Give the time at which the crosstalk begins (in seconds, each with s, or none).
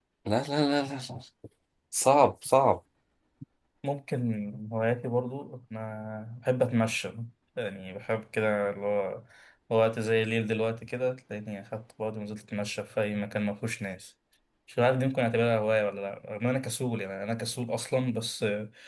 none